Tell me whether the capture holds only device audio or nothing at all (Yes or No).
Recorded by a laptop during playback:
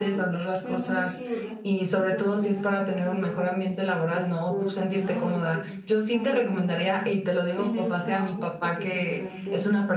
No